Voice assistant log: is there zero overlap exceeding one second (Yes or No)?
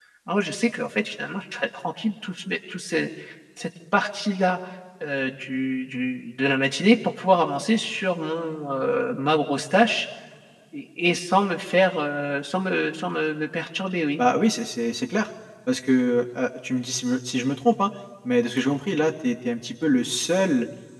Yes